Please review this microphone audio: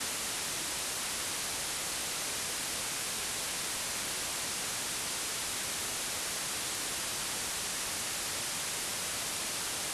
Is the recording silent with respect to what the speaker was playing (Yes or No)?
Yes